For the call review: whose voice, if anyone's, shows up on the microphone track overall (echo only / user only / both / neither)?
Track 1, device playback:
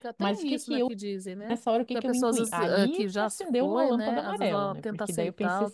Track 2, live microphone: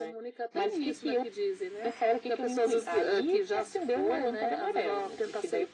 echo only